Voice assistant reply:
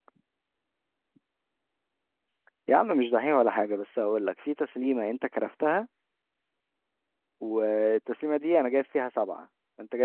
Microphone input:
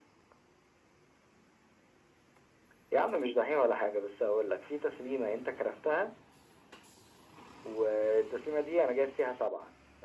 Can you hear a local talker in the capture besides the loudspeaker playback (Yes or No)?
No